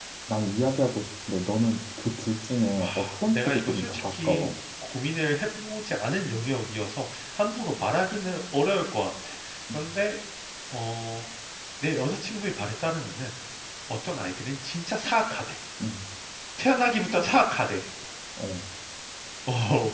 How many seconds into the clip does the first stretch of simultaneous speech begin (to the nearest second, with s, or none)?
3 s